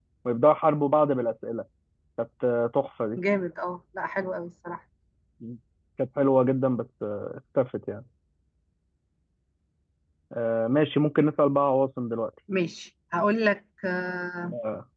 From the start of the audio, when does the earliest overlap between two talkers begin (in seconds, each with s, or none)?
none